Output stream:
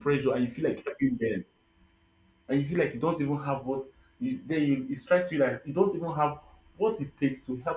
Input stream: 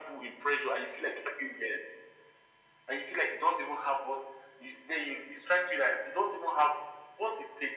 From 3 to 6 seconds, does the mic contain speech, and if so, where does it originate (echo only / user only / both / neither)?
echo only